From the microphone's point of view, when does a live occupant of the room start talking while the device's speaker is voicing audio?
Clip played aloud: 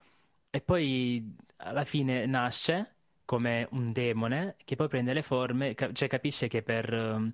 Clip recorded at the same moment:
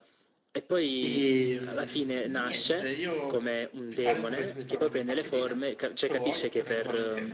1.0 s

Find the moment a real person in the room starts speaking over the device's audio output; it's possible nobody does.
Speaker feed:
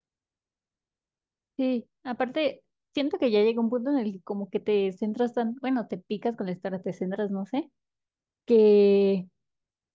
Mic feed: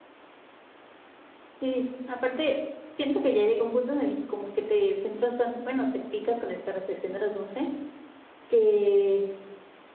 none

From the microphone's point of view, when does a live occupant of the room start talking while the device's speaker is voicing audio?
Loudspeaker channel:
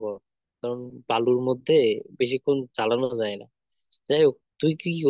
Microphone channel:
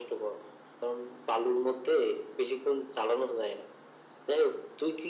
none

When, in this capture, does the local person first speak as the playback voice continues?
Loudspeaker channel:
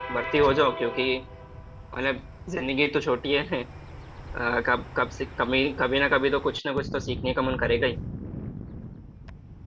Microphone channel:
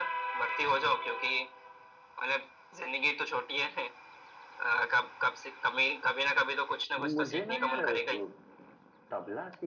7.0 s

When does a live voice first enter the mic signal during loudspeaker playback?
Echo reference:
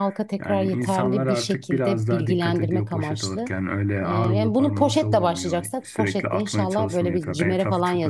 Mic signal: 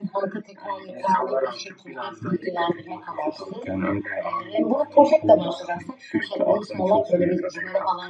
none

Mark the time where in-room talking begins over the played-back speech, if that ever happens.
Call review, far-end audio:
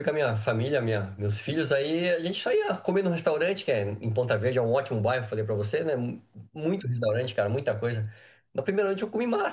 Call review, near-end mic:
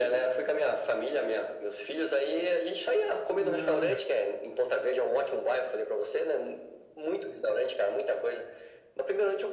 3.4 s

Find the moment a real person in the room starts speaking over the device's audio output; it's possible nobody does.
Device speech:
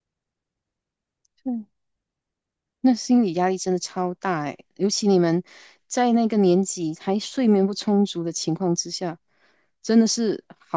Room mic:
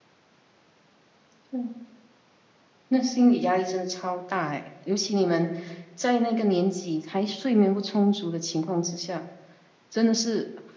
none

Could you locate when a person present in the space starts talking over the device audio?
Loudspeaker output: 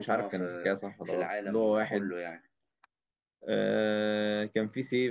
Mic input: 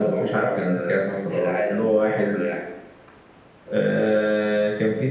none

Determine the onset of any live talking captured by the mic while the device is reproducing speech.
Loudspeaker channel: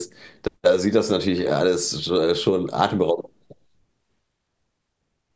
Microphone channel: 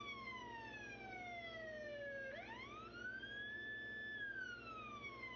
none

